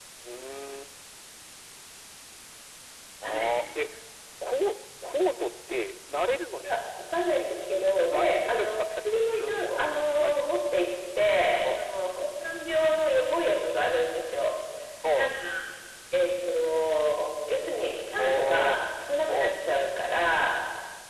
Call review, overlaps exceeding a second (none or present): present